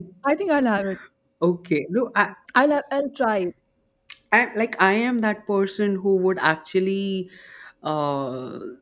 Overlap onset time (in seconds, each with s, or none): none